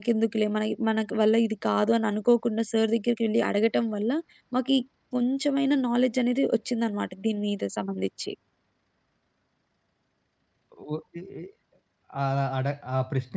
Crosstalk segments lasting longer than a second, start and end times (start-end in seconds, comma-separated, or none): none